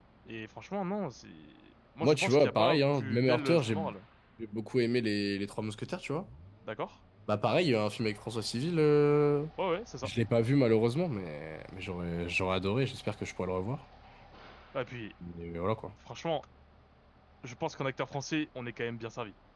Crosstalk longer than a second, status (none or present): present